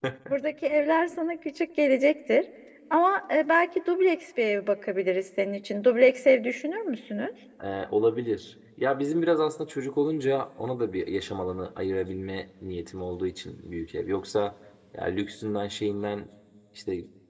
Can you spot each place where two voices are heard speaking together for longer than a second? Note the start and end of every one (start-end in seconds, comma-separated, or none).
none